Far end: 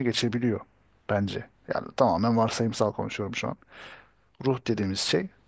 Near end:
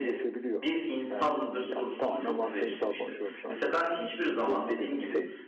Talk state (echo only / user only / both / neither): both